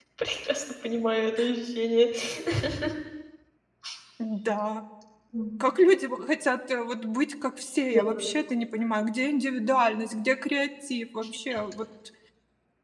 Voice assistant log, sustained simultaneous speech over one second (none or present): none